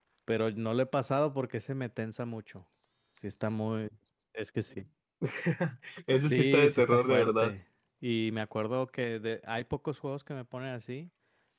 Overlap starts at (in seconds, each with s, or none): 6.3 s